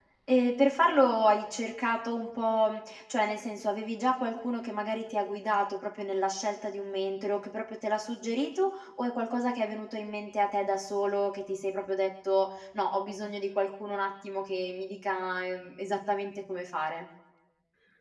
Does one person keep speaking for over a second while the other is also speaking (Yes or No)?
No